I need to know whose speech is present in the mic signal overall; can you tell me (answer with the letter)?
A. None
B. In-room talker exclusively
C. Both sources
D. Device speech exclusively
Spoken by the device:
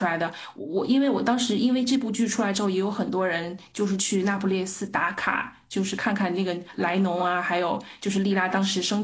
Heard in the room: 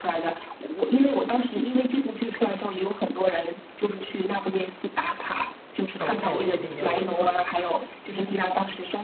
C